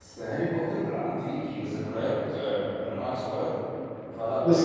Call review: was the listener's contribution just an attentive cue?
No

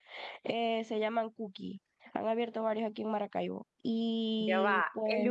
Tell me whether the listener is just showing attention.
No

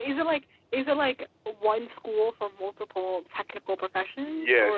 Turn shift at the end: Yes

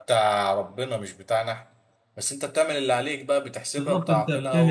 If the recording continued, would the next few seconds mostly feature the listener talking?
Yes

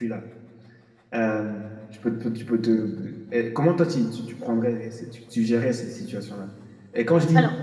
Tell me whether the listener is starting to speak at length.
No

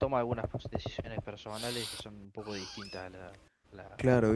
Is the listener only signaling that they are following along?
No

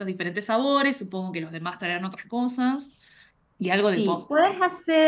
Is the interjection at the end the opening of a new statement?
Yes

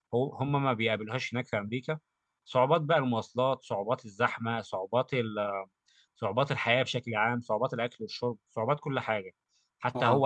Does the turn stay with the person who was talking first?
Yes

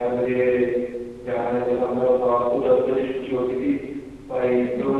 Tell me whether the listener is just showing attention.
Yes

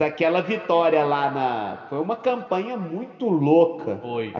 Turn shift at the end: No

